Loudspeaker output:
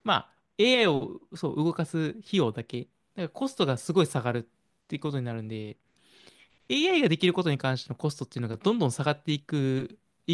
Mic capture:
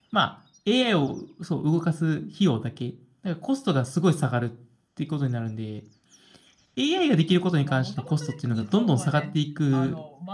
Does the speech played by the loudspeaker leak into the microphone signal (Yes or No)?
Yes